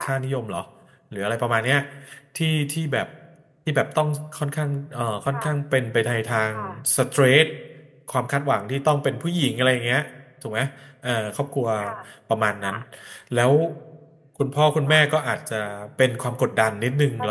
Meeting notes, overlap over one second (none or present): none